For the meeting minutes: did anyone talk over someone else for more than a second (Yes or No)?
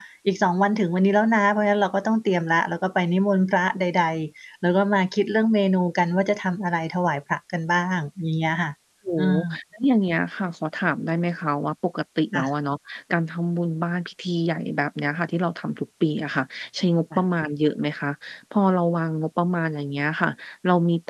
No